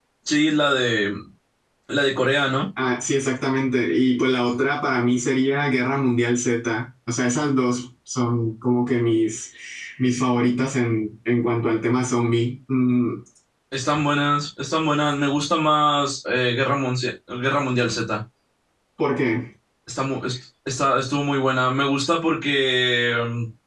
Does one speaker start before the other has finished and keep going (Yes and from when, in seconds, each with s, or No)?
No